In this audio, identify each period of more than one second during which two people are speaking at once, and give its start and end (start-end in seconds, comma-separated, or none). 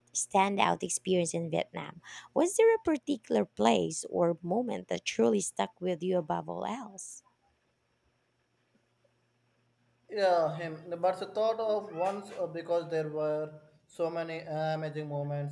none